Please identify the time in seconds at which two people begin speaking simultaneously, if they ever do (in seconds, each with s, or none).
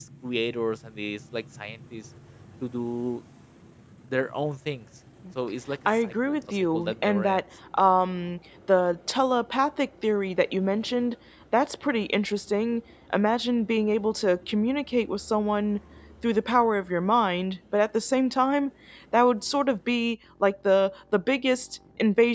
6.0 s